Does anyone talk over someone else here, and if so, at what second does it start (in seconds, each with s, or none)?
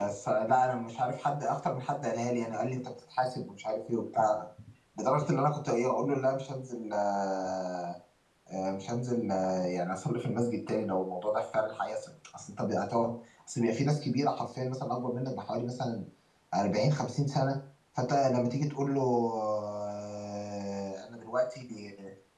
none